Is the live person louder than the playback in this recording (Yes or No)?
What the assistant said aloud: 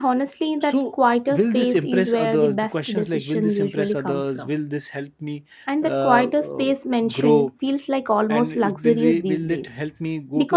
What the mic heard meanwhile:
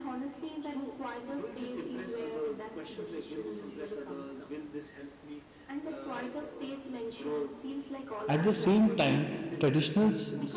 Yes